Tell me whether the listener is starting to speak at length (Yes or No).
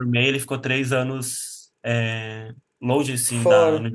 No